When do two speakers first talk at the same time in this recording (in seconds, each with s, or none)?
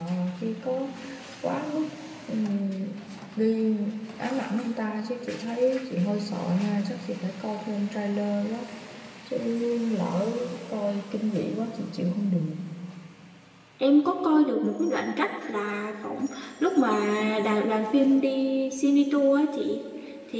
none